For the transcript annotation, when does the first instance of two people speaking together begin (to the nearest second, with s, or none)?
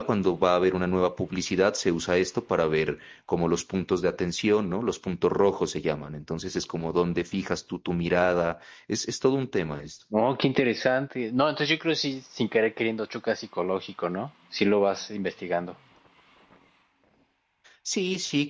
none